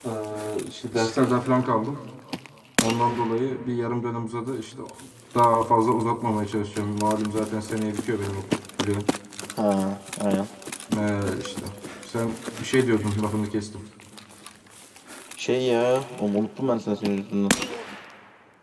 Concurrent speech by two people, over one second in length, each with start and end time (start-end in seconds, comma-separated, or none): none